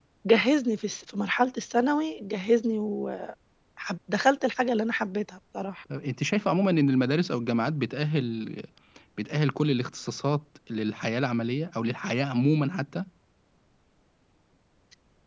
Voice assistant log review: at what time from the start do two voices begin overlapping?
none

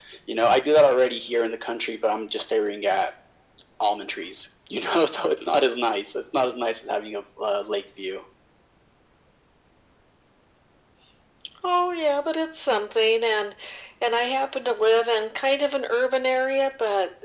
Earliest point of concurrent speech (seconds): none

